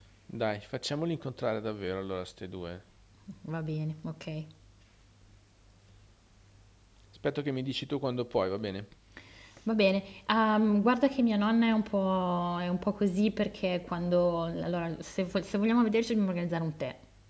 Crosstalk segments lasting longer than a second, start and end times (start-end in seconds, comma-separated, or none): none